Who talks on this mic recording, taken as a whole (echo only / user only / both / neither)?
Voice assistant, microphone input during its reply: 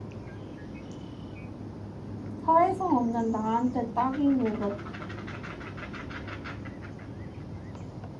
user only